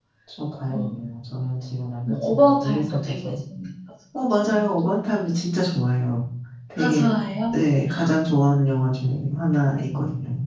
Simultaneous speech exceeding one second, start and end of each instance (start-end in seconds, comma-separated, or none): 2.0-3.3